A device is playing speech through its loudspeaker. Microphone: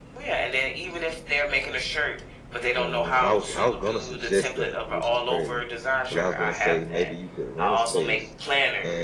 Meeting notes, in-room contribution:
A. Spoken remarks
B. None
A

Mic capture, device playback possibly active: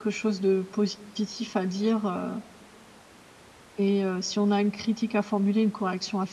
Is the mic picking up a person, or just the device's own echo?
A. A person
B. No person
A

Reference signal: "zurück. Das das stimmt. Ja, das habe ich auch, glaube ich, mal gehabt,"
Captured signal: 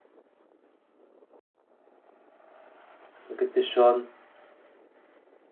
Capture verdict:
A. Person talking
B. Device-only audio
A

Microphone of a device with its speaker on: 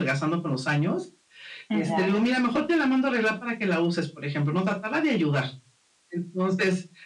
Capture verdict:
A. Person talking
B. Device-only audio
A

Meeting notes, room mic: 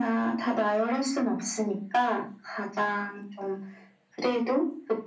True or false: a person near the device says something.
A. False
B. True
A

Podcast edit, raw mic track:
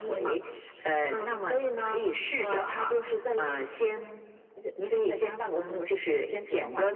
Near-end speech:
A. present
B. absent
B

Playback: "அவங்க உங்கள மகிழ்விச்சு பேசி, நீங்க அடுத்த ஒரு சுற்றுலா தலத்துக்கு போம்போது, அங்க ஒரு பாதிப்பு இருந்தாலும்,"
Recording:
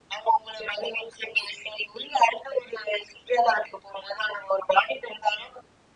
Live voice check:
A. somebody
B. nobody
B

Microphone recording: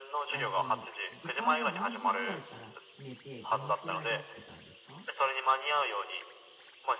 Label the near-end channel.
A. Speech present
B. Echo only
A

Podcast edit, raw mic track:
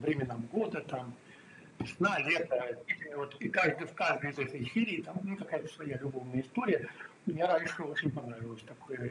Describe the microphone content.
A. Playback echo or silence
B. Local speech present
A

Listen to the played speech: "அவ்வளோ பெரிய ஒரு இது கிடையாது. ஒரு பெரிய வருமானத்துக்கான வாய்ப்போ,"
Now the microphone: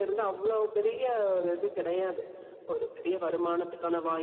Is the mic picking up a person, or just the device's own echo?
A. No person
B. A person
A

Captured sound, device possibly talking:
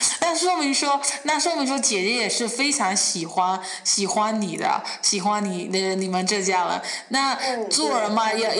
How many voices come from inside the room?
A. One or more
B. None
A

